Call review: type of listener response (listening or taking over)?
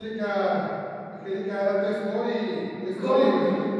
listening